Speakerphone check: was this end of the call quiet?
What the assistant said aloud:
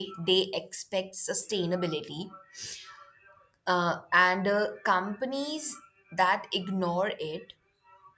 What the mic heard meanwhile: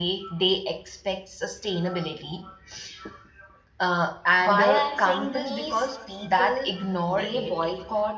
No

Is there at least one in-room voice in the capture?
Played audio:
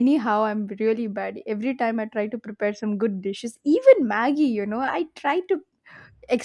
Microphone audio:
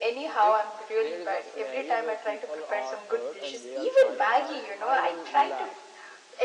Yes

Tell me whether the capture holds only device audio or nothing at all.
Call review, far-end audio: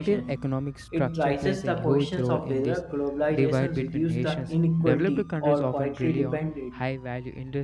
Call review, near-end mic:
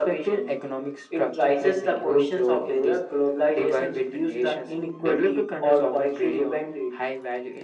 Yes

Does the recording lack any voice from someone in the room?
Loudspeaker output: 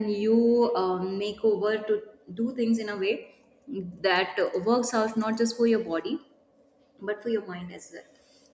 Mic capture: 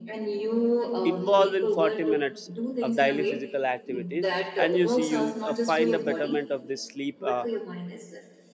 No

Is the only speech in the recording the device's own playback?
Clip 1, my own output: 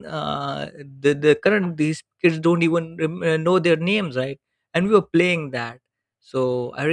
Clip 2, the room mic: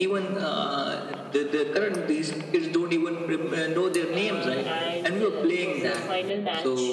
No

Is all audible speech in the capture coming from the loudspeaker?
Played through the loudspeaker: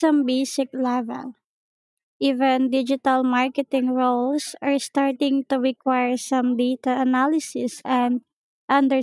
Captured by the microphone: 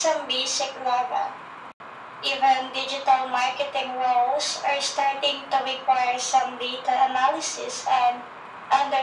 Yes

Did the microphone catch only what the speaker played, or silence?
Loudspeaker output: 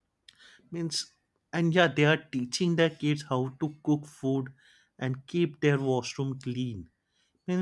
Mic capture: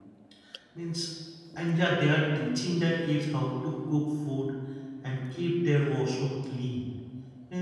Yes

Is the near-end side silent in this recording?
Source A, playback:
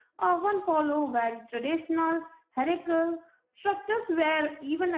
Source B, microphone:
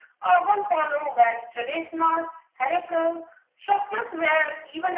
Yes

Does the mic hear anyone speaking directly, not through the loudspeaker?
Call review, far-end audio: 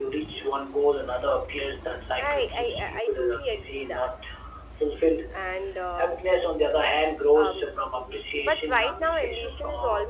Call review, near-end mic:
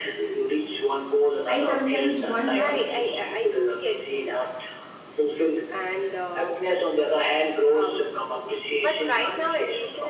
Yes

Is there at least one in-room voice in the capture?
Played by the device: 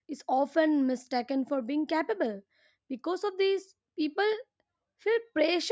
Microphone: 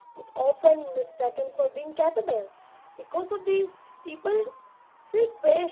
No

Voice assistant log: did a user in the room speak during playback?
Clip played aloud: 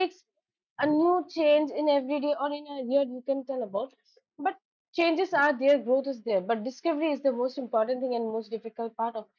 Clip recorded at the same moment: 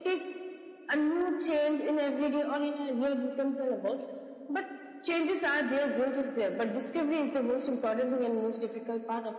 No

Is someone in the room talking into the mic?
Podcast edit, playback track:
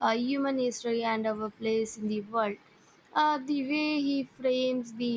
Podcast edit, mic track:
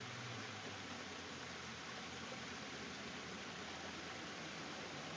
No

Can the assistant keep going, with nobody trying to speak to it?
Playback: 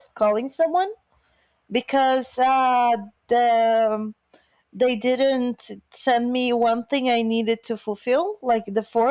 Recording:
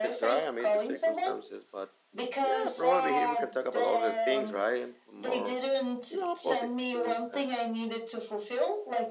No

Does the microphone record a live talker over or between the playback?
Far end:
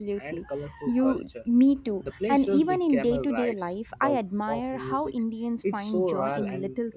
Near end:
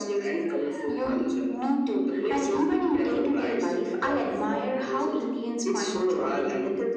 No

